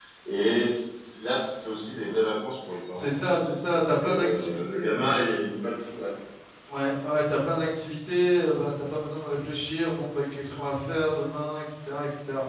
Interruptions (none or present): present